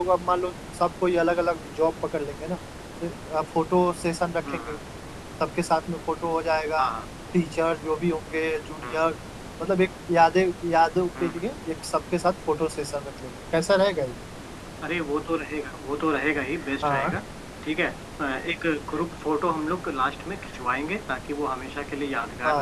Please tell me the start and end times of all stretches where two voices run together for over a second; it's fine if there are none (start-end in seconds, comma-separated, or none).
none